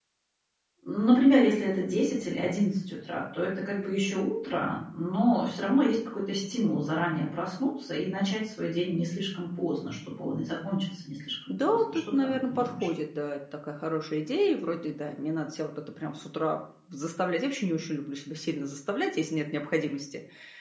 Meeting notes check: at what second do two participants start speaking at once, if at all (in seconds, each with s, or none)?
11.5 s